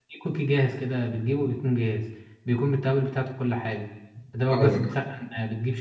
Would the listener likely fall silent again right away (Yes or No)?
Yes